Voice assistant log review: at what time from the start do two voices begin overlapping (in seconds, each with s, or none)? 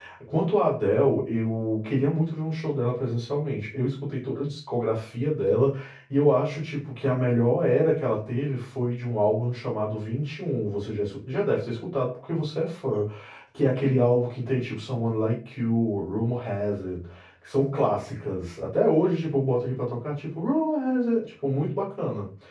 none